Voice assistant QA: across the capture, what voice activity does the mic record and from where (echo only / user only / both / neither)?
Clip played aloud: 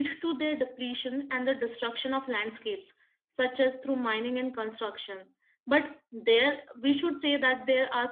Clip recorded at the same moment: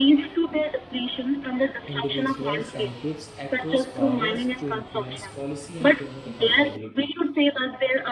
both